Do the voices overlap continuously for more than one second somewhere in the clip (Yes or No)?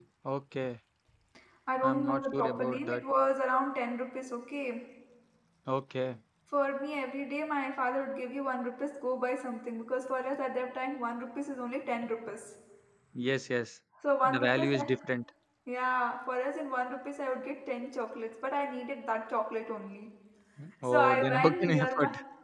Yes